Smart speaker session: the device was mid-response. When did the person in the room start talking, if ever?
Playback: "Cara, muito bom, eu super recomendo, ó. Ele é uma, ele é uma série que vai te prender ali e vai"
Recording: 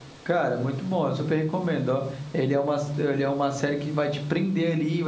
none

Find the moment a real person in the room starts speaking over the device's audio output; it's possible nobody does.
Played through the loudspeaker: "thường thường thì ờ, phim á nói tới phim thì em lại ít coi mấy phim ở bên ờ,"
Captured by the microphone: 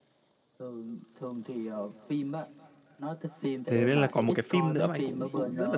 3.7 s

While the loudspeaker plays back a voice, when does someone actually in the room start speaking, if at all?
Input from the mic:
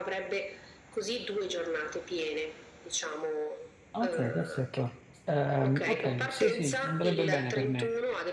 3.9 s

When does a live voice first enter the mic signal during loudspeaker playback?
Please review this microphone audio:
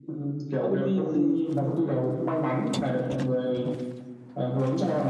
0.6 s

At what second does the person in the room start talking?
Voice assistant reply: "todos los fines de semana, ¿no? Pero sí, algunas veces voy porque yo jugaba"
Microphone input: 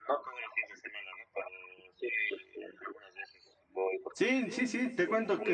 4.1 s

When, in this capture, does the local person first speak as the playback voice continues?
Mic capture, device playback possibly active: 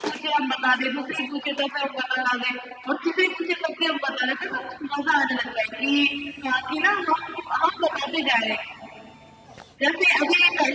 none

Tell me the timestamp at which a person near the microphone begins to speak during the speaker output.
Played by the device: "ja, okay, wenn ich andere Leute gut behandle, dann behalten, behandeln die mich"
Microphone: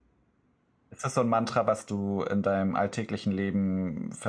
0.9 s

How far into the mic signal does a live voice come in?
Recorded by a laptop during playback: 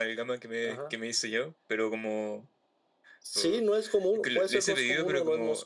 none

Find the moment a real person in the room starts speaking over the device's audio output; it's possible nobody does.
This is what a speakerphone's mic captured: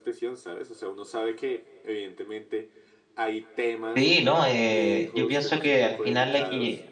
3.9 s

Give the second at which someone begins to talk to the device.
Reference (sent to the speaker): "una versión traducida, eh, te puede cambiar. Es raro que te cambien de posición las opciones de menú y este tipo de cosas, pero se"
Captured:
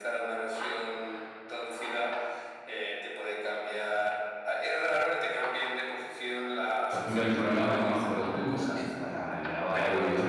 6.9 s

